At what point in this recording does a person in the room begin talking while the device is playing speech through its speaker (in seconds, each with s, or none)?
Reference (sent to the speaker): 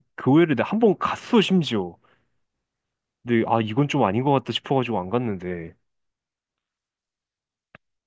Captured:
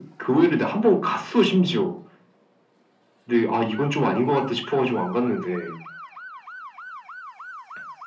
none